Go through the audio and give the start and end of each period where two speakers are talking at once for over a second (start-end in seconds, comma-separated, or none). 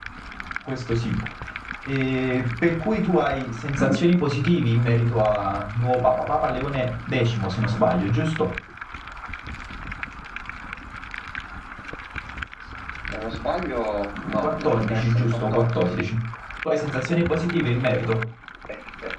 14.4-16.0